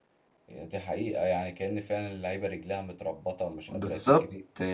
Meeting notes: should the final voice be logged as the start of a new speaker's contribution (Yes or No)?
Yes